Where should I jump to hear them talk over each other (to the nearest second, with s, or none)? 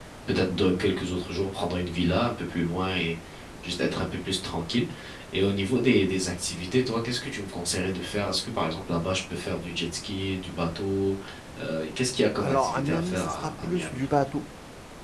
12 s